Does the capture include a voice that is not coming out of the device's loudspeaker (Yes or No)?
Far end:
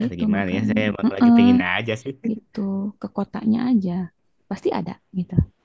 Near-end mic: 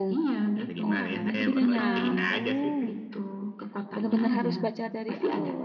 Yes